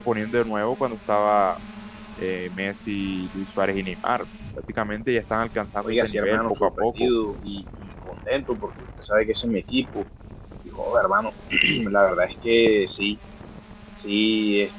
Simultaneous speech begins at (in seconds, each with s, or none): 5.8 s